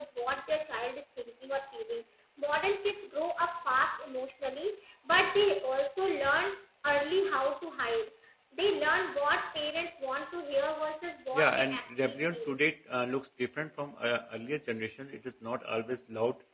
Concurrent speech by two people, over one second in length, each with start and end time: 11.3-12.6

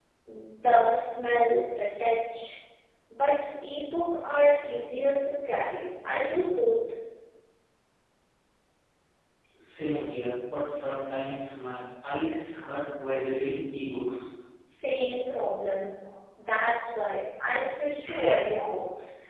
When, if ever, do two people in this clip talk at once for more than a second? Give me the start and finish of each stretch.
none

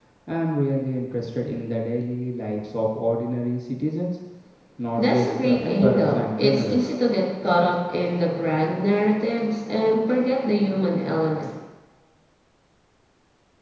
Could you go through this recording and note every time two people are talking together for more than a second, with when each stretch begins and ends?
5.0-6.9

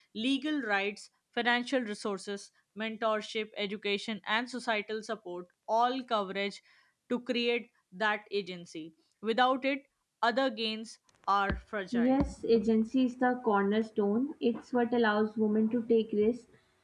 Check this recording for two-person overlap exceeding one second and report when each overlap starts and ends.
none

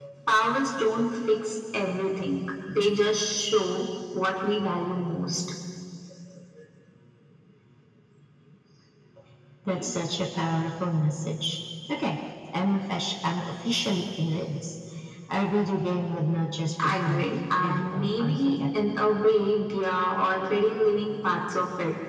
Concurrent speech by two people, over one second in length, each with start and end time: 16.8-18.8

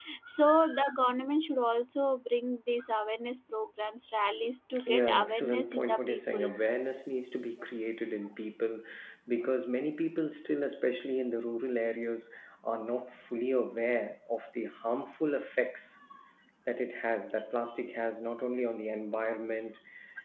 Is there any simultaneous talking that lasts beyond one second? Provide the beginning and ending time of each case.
4.8-6.5

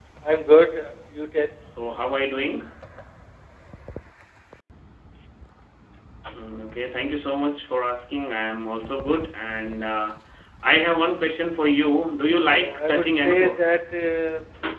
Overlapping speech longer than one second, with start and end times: 12.3-13.7

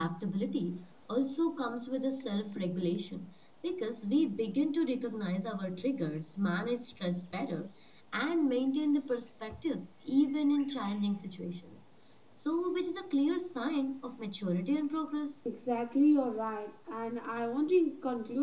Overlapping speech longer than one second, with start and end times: none

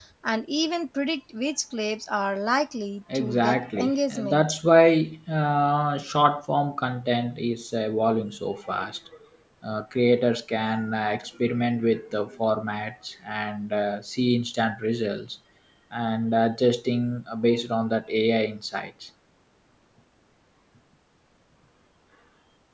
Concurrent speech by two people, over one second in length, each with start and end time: 3.1-4.4

